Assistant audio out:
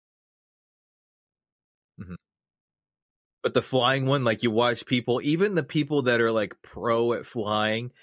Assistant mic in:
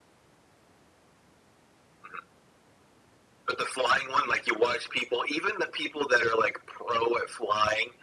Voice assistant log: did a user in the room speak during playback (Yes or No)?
No